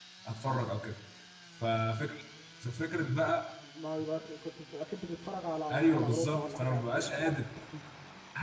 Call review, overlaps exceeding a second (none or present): present